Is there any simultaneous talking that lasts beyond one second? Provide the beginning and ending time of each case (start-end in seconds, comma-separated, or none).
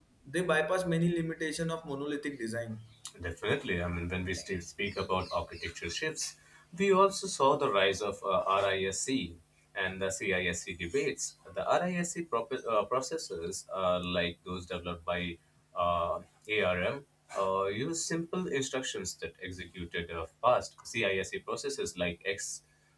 none